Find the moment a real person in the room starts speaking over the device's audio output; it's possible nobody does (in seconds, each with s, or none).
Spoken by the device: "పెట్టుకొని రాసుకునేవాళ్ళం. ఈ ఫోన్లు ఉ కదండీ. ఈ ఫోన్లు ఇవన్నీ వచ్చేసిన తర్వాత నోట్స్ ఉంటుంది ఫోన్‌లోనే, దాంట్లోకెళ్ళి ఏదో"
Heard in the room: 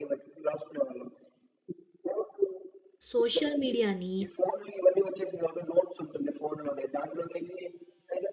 3.1 s